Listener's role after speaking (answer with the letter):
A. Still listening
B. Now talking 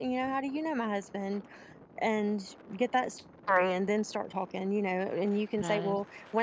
A